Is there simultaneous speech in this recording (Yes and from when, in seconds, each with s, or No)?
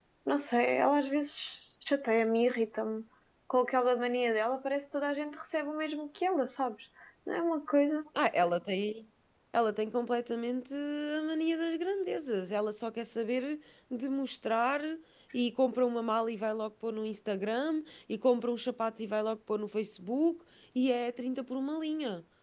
No